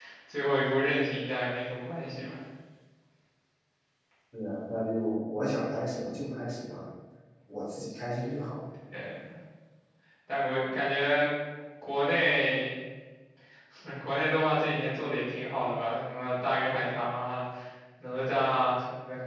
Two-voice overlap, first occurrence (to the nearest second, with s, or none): none